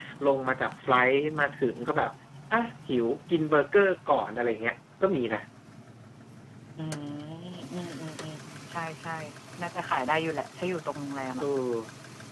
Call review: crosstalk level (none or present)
none